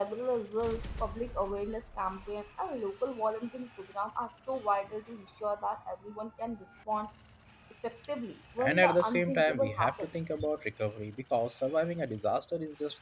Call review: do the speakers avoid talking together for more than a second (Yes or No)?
No